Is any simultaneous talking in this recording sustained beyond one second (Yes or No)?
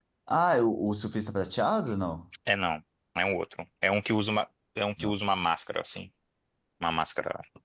No